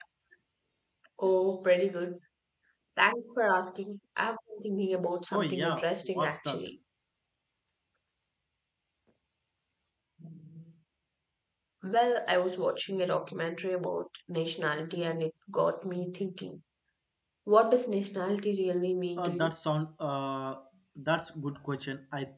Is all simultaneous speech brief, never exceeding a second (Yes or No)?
No